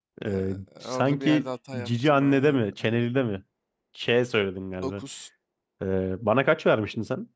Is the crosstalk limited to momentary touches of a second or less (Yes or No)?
No